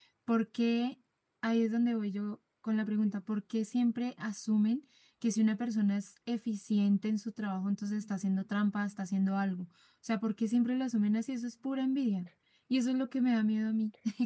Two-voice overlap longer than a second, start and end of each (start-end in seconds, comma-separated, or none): none